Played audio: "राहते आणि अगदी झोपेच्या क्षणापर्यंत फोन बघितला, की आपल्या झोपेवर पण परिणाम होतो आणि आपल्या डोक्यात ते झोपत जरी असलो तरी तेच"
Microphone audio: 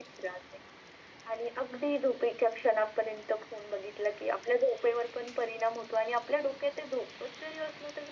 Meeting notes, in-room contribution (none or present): none